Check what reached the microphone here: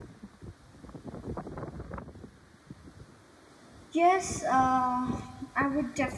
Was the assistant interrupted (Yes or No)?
Yes